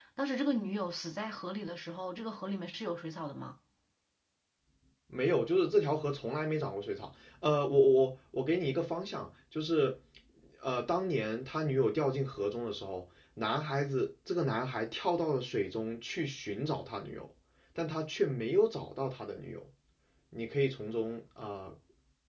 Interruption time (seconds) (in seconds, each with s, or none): none